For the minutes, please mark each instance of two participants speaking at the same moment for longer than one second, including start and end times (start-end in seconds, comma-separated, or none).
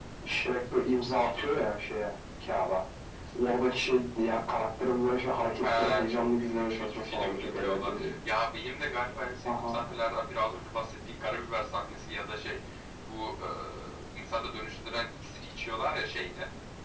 5.6-8.1